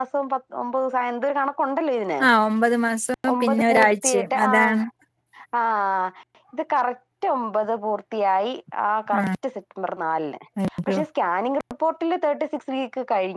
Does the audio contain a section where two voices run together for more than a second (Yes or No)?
Yes